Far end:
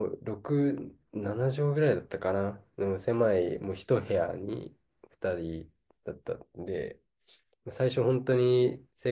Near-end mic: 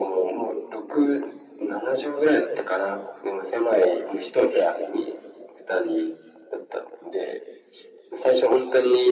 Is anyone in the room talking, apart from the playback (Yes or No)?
No